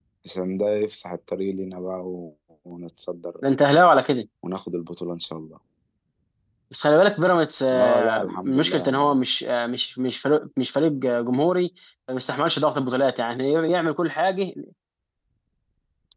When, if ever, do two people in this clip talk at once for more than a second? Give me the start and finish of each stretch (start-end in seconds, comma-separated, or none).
7.7-8.9